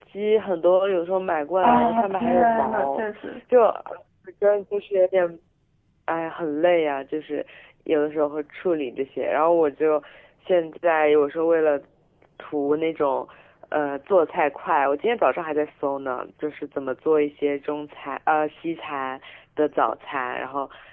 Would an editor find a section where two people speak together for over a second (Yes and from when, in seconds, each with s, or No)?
Yes, from 1.6 s